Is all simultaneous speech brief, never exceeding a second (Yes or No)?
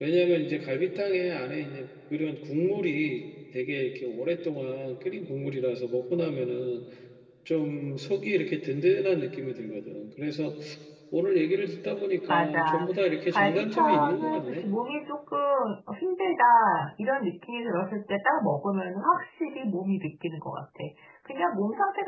No